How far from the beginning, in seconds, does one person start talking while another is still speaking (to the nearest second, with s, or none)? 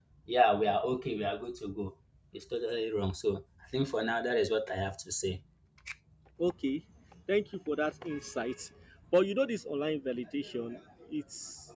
none